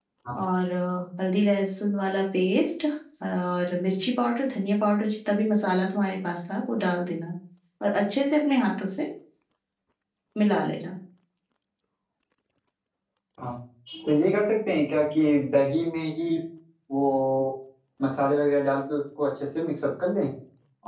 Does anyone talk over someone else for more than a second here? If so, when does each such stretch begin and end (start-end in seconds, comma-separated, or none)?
none